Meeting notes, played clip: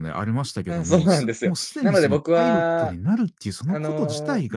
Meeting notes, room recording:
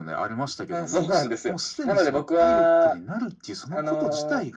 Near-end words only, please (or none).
none